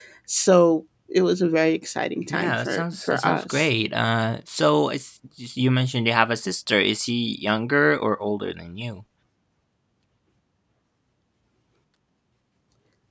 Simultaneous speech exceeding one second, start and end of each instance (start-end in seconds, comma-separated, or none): 2.3-3.7